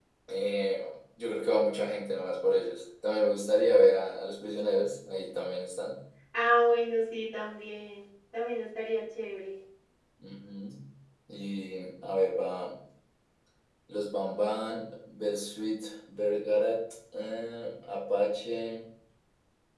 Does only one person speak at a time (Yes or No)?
Yes